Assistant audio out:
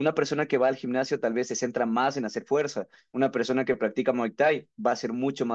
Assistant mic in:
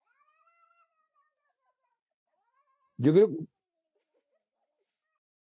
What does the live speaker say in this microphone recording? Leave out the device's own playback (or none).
yo creo,